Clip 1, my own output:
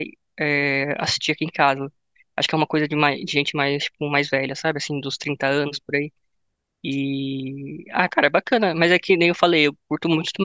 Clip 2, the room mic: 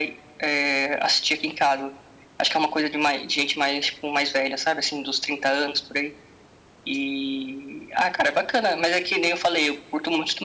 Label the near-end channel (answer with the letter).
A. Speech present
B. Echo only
B